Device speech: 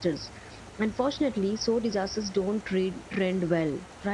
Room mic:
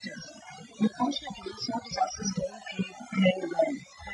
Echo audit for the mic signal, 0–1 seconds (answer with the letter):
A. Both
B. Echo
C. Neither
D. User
B